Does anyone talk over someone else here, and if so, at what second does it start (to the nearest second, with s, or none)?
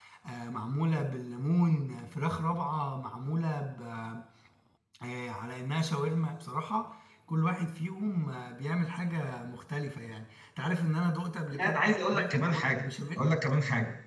12 s